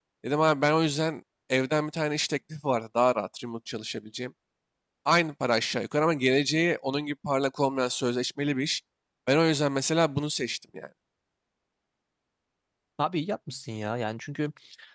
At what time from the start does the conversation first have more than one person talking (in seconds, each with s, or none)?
none